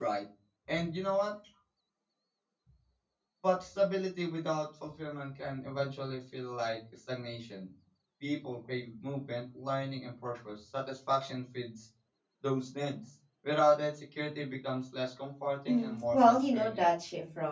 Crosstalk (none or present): present